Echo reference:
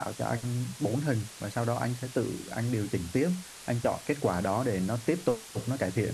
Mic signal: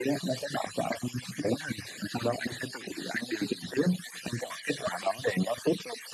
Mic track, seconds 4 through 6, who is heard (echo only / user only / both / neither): echo only